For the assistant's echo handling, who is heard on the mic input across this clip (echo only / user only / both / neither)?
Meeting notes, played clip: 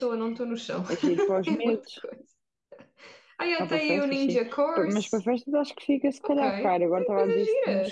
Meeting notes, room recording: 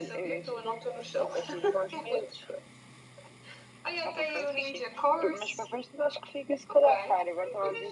echo only